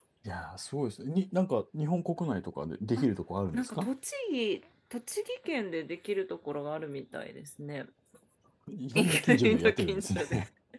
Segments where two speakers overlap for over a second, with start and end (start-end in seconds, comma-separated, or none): 8.9-10.2